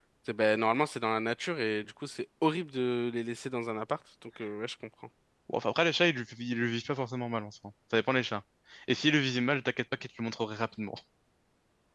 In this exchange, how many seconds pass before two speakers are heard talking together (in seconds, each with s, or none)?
none